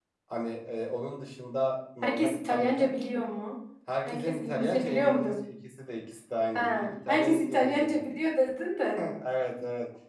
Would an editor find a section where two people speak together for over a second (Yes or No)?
Yes